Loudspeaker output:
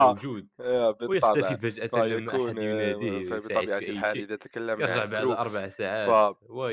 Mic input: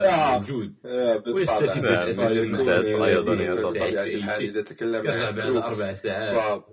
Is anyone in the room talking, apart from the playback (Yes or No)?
Yes